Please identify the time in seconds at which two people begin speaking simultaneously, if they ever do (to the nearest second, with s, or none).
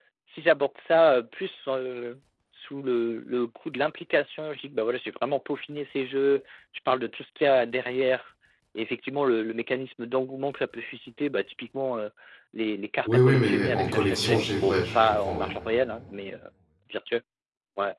13 s